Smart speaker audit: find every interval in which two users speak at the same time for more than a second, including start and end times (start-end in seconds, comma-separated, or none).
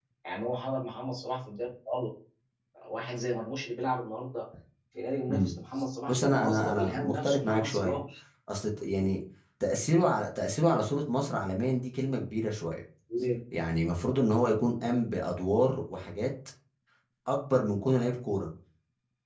6.1-8.0